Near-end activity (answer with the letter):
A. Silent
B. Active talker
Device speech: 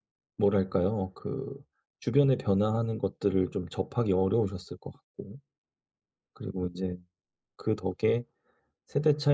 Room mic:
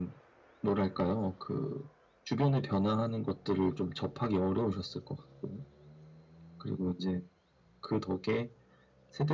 A